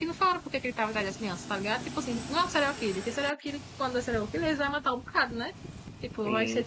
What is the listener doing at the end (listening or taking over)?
taking over